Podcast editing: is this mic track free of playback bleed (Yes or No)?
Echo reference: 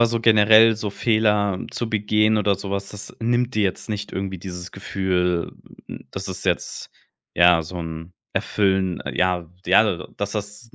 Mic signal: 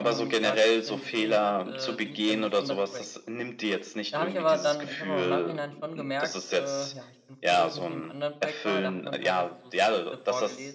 No